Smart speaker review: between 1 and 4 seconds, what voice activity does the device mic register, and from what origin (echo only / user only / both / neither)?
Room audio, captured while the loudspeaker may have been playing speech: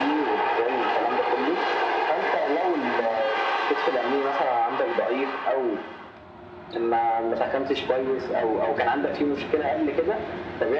echo only